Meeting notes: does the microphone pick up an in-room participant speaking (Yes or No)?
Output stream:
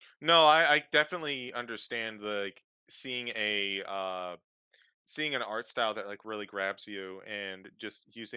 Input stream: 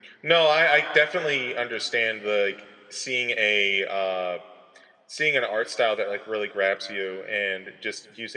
No